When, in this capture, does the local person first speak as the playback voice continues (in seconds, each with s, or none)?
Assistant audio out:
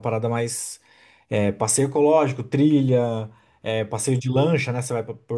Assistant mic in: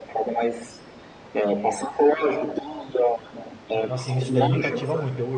3.7 s